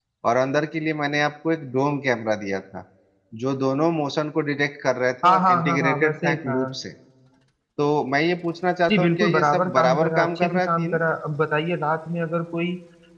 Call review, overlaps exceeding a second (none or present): present